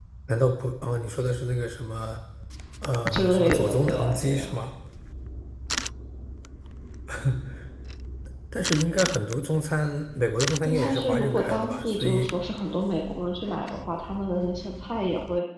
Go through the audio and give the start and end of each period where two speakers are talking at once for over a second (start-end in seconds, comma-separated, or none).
3.1-4.5, 10.6-12.3